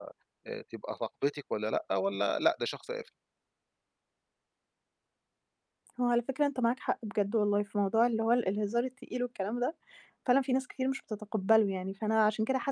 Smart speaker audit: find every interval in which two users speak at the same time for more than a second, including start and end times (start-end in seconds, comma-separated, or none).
none